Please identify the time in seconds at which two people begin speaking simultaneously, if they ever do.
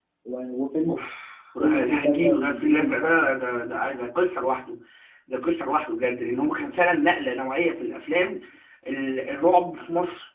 1.6 s

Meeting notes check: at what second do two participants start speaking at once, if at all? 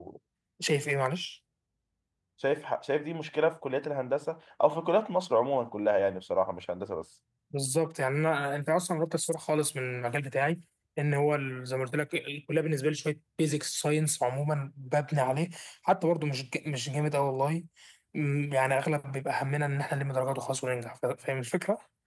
none

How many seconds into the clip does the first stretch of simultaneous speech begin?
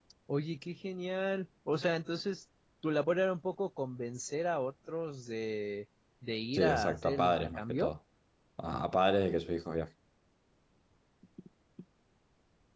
6.5 s

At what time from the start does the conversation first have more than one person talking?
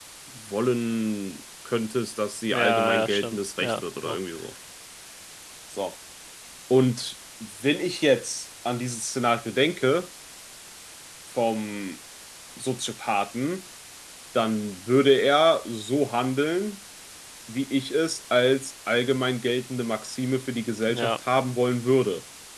2.5 s

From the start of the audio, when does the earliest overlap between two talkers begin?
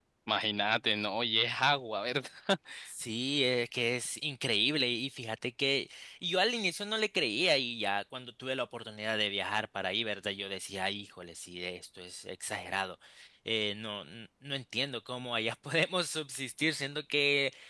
none

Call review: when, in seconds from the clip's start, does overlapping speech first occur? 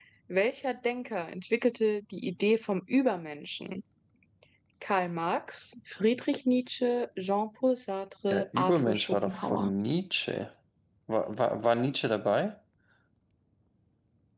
8.3 s

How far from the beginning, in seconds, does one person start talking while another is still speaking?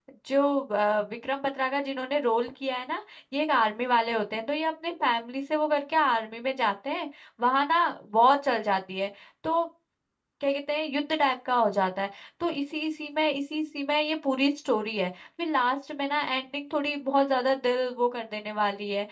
none

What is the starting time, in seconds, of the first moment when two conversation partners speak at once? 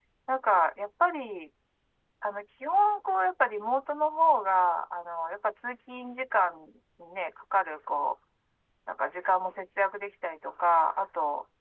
none

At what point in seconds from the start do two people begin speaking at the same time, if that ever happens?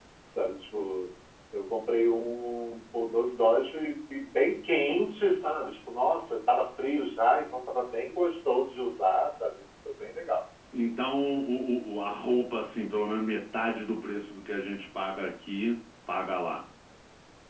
none

